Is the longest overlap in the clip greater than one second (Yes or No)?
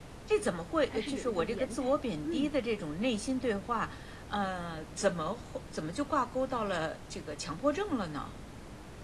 Yes